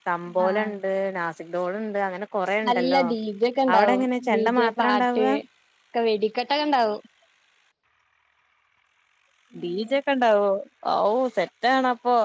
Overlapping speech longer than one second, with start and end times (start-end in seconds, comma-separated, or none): 3.7-5.2